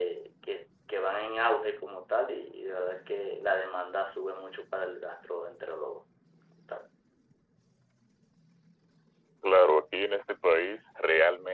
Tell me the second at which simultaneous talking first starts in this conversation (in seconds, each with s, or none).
none